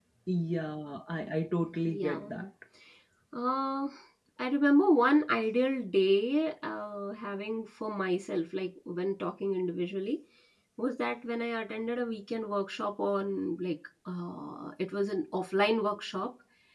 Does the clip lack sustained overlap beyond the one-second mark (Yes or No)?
Yes